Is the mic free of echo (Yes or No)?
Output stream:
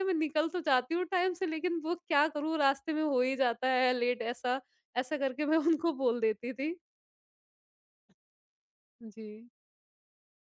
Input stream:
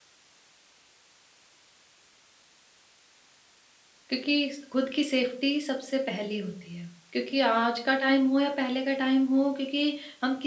Yes